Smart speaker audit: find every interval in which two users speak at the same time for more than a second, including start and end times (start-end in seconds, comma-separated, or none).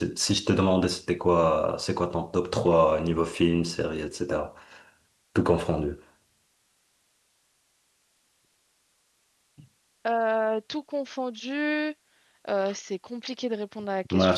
none